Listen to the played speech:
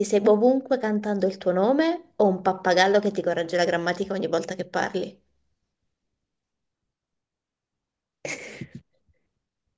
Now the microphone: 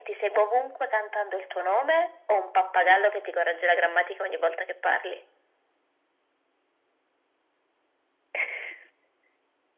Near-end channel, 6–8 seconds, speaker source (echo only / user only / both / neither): neither